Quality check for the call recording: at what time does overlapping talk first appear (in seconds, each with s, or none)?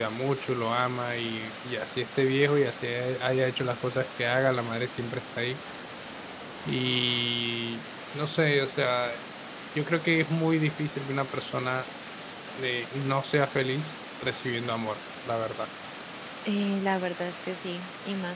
none